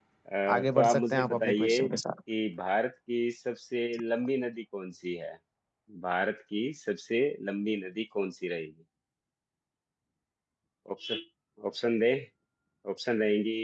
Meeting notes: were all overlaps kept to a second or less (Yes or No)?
No